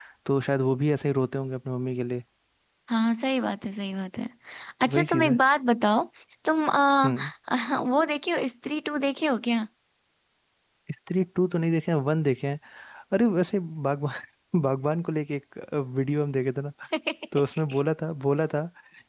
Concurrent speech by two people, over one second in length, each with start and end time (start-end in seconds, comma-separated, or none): none